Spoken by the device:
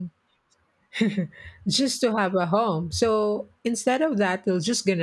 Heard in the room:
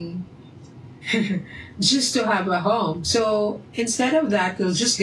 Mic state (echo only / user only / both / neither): echo only